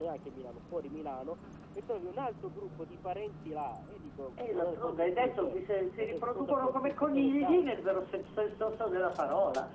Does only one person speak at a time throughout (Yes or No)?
No